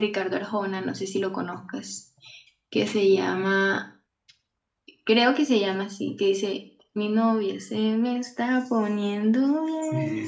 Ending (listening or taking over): taking over